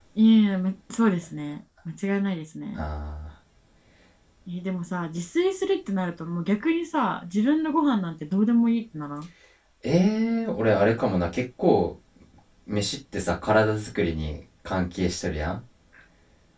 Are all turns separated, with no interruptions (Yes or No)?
Yes